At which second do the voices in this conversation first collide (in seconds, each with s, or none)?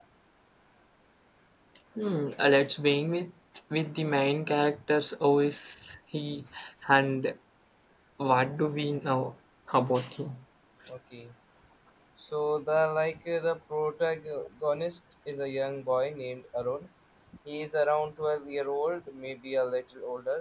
none